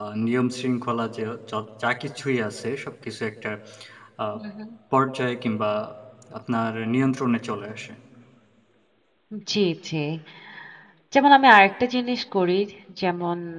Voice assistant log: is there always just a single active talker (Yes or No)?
Yes